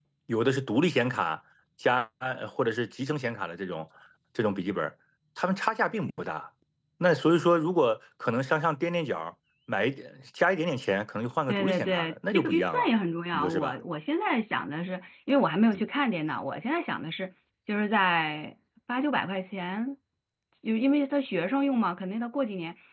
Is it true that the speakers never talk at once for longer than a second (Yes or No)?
No